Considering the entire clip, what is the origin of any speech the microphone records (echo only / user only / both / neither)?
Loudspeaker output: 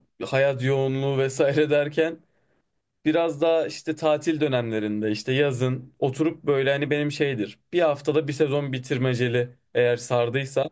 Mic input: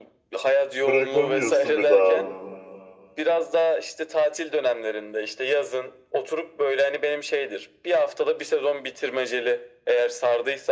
both